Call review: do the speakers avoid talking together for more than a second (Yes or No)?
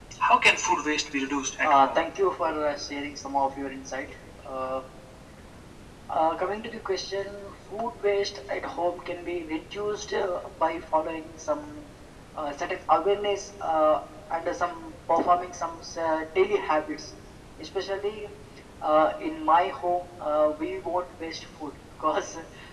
Yes